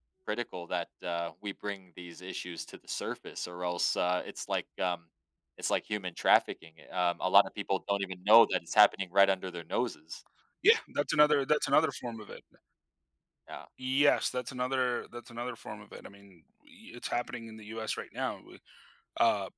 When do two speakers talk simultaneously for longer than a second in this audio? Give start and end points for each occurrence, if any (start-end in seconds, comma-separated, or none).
none